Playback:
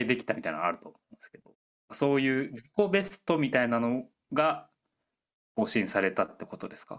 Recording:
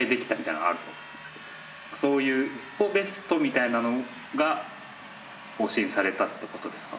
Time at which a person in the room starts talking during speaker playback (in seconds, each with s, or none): none